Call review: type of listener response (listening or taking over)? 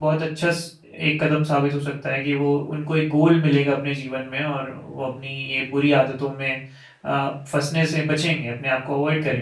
taking over